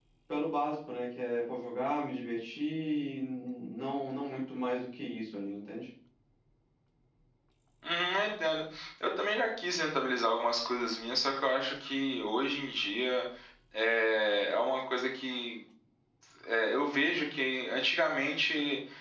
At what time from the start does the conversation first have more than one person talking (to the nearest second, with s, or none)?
none